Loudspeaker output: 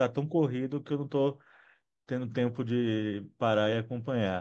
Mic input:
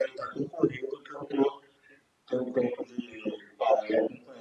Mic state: echo only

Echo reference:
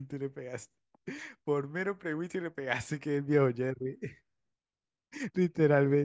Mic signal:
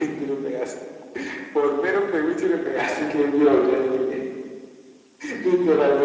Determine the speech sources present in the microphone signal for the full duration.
echo only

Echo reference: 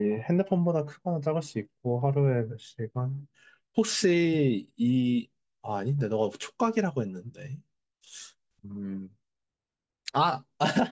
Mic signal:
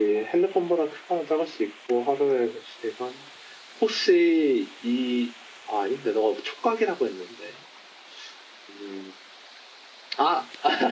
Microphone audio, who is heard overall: echo only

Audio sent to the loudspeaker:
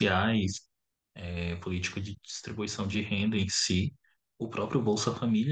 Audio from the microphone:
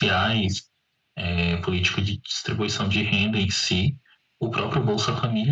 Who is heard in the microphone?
echo only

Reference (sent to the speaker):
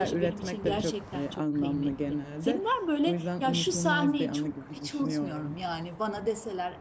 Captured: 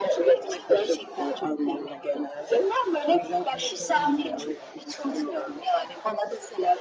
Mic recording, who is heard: echo only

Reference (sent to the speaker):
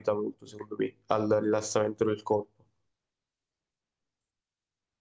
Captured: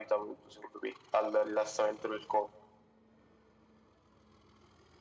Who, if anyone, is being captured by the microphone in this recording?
echo only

